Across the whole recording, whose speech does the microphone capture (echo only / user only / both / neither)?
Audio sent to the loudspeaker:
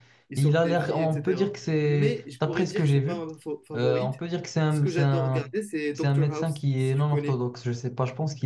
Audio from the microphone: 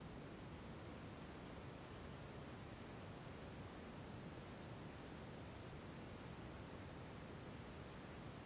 neither